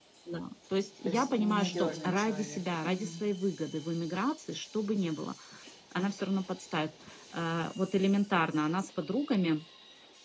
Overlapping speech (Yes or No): Yes